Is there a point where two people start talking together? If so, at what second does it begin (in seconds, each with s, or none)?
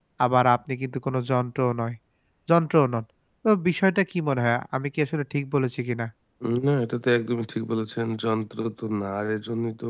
none